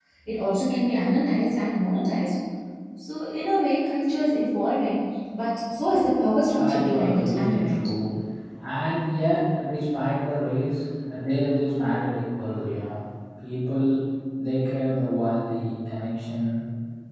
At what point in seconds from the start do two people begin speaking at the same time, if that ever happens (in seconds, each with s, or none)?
6.5 s